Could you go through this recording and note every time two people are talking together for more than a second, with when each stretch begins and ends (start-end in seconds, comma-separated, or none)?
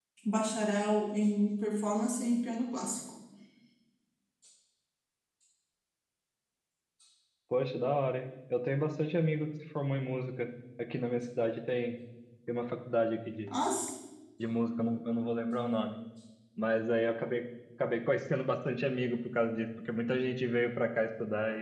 none